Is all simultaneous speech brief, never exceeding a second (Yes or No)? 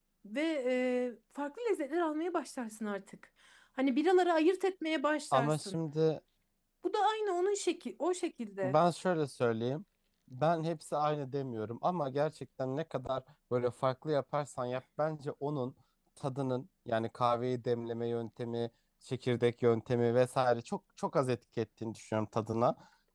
Yes